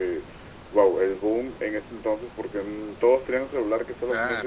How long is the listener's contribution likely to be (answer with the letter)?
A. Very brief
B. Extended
A